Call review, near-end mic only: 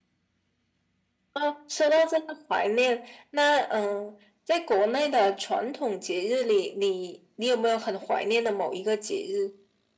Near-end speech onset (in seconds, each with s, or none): none